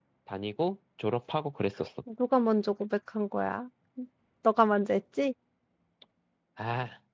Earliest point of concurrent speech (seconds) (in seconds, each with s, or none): none